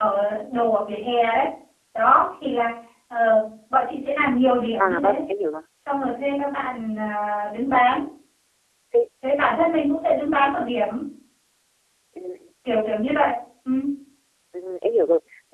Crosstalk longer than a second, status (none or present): none